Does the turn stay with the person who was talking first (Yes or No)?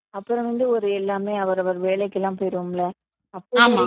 Yes